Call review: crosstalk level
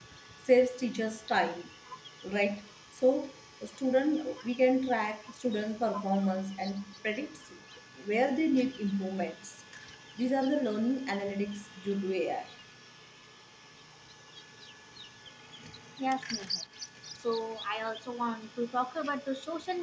none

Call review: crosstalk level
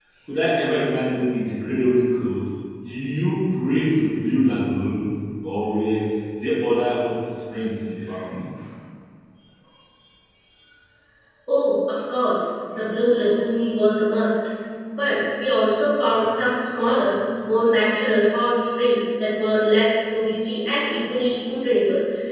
none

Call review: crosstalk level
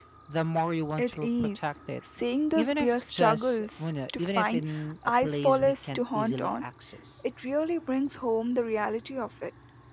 present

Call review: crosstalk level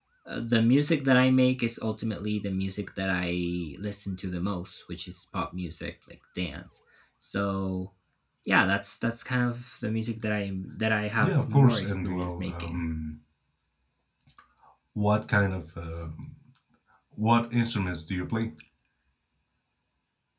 present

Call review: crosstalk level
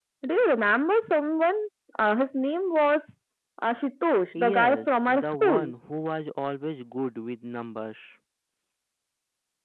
present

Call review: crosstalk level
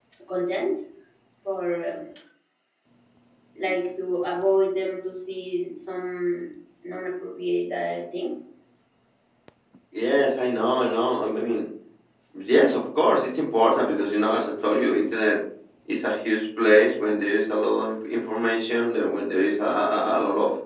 none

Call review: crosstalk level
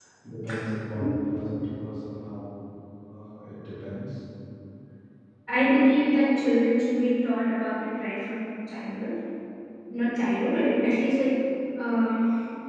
none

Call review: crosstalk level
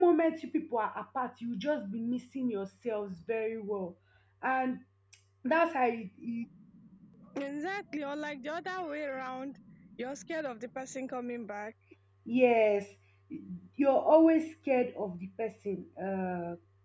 none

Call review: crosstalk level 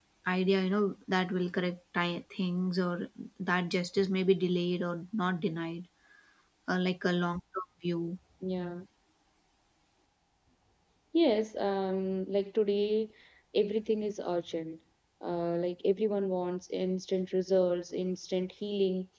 none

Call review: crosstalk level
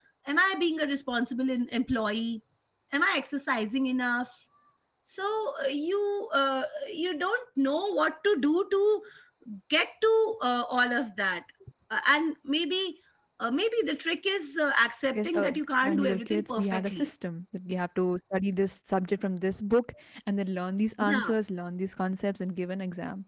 present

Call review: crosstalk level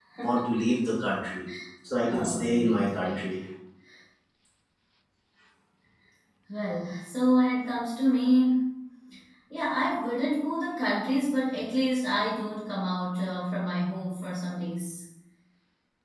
present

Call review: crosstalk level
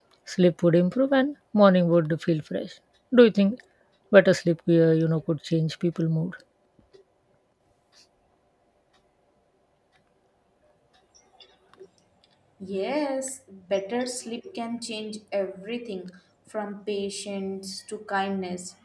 none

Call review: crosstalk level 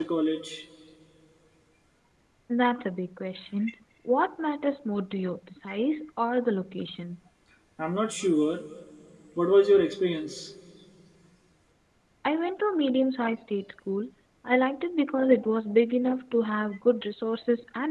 none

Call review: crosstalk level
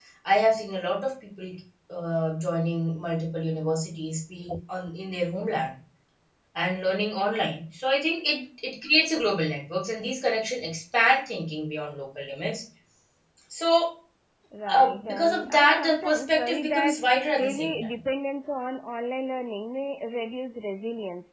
present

